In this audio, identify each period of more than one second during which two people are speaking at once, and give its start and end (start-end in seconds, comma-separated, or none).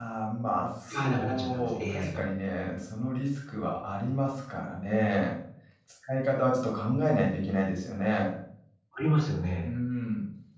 0.9-2.2